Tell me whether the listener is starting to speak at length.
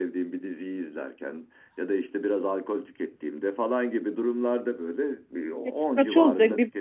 Yes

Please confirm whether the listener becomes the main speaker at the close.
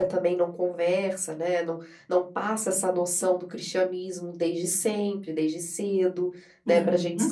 No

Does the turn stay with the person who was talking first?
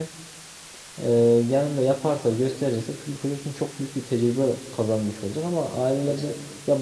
Yes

